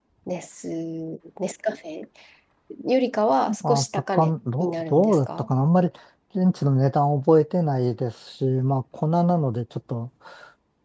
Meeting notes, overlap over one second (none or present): present